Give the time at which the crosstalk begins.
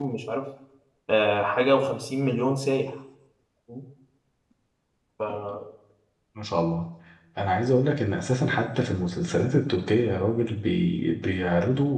none

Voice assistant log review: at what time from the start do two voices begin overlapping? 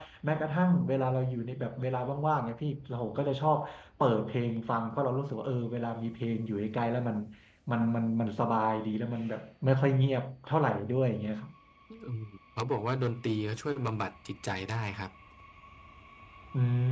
none

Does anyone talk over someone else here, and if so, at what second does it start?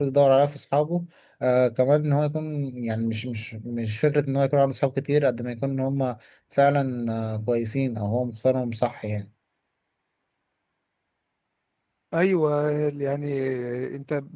none

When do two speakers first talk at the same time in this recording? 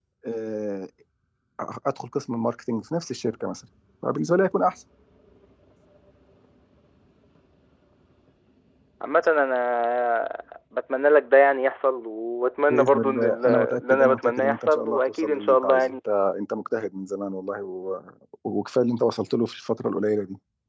12.7 s

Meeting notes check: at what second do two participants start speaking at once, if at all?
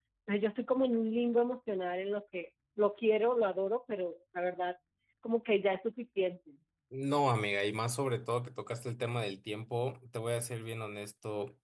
none

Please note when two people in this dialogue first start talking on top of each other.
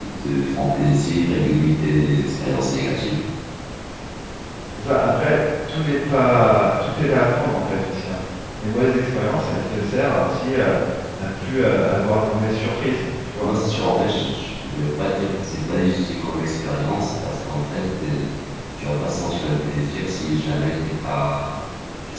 none

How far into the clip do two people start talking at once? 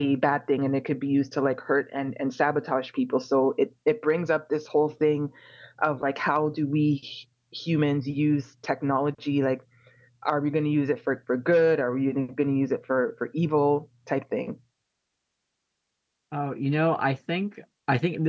none

